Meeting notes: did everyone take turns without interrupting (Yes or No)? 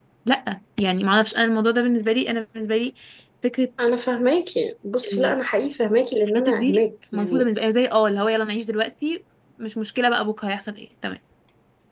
No